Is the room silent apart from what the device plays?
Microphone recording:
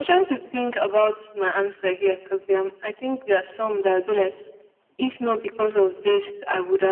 Yes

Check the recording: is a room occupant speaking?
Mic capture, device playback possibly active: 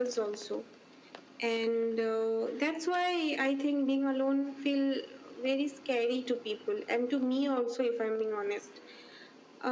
No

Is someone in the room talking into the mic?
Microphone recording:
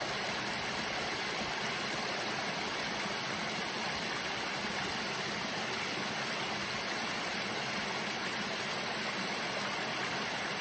No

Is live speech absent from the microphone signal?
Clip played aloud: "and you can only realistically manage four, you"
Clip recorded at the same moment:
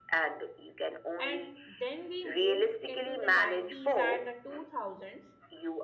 No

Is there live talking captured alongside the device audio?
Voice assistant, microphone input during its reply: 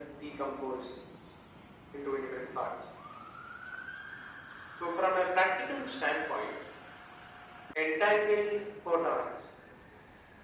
No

